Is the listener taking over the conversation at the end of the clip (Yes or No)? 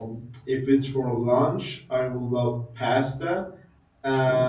No